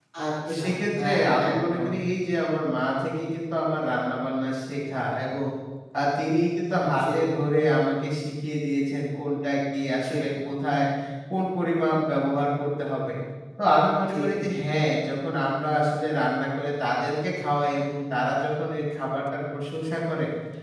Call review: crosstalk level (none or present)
present